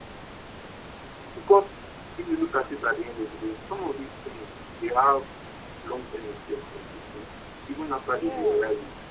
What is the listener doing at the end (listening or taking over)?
listening